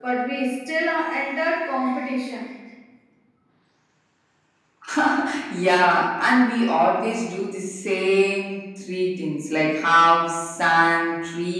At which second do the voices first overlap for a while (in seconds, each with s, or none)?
none